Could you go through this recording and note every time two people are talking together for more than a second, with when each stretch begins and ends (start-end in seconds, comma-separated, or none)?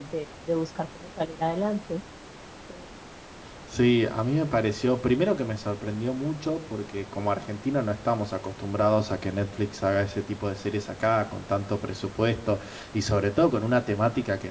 none